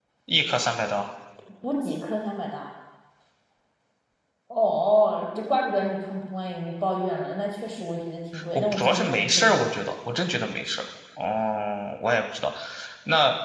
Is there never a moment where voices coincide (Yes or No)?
No